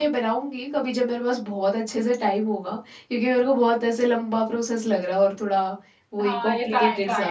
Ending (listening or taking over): taking over